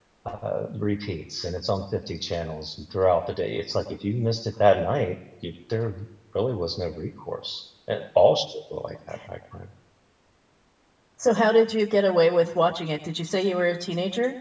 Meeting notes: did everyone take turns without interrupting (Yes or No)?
Yes